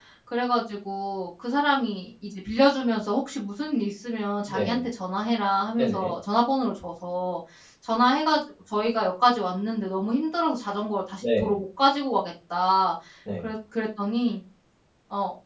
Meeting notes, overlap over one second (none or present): none